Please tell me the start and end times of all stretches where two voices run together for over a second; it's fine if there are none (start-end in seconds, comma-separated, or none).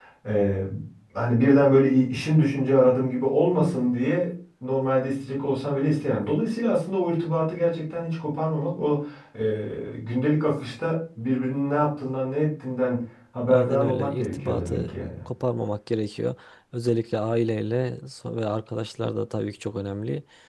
13.5-15.2